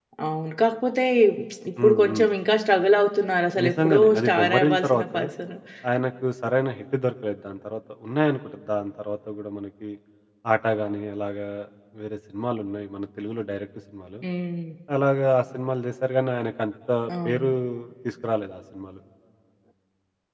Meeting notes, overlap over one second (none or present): present